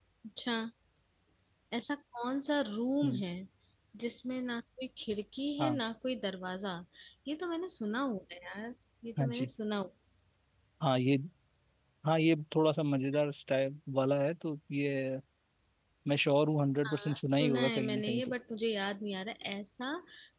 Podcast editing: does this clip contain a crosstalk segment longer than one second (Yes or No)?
Yes